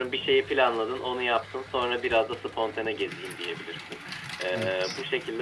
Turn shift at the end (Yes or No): No